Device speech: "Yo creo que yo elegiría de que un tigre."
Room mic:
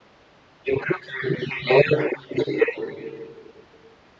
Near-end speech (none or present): none